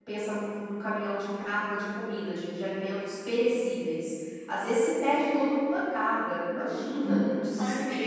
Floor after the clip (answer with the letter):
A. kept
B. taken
B